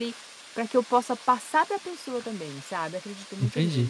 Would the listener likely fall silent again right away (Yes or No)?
No